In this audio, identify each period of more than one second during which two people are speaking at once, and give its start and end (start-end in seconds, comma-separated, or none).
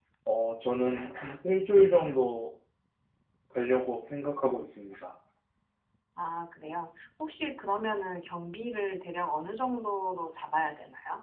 none